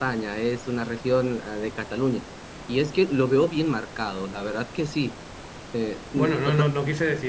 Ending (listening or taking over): taking over